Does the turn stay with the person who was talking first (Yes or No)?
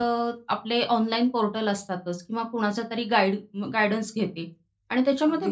Yes